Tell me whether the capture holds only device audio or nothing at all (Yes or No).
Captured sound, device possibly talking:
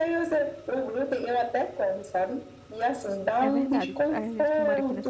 No